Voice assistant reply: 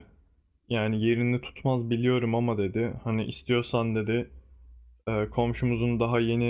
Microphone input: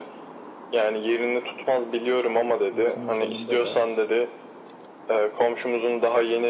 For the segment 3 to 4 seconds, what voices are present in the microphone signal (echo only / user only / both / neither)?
both